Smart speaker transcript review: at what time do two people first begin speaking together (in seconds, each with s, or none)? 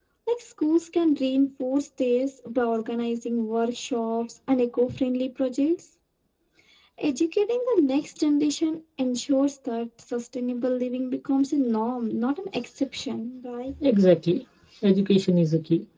none